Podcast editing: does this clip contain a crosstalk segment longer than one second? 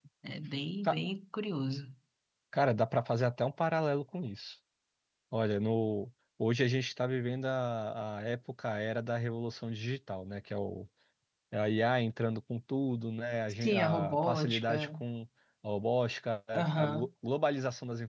Yes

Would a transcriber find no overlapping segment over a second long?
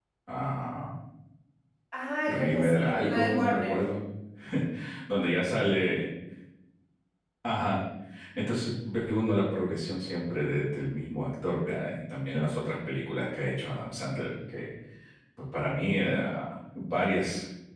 No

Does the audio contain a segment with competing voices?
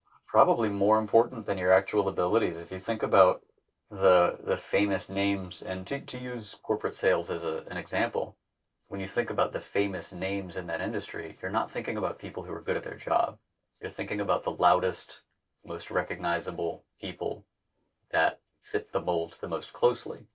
No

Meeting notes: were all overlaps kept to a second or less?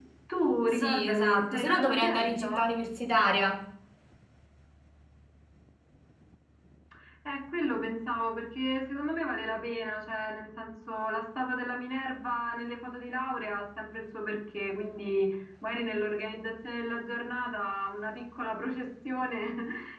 No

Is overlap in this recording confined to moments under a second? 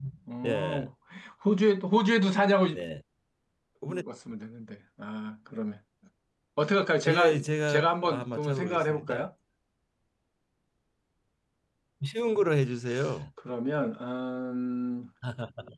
No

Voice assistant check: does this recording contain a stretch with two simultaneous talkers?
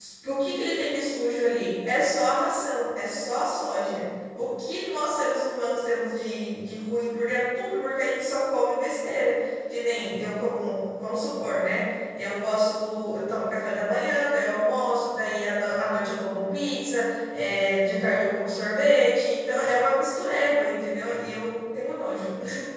No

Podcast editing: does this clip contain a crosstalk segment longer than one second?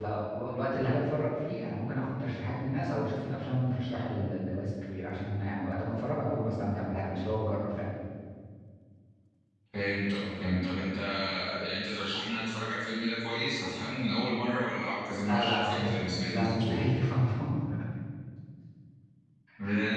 Yes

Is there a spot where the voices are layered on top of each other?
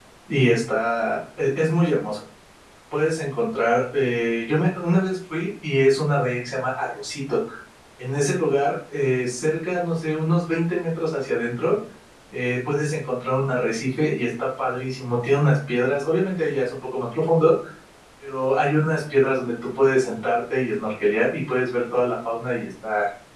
No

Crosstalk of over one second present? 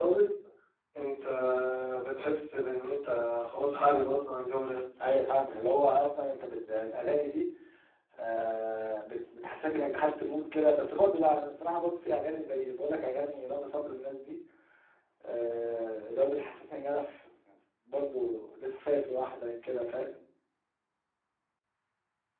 No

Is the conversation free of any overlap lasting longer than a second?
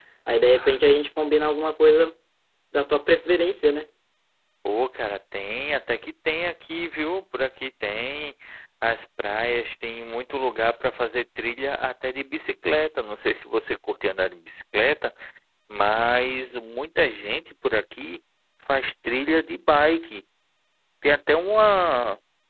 Yes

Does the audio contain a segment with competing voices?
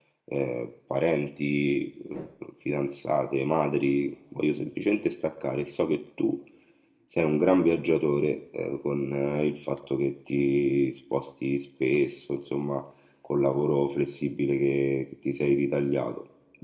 No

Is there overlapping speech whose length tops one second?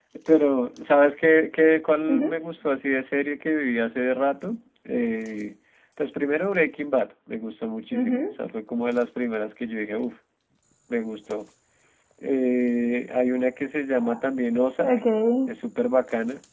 No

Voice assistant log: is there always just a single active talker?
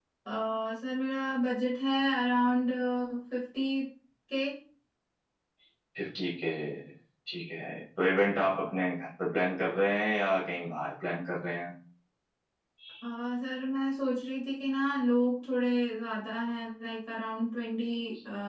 Yes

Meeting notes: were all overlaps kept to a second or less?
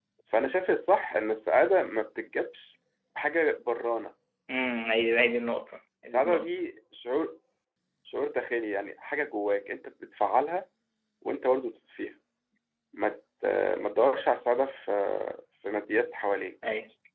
Yes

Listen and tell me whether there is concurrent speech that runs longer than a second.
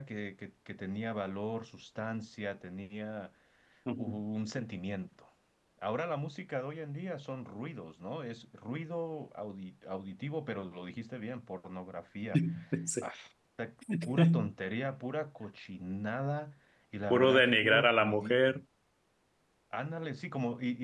Yes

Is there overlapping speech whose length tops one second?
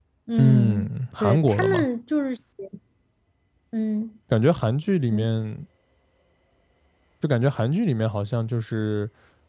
Yes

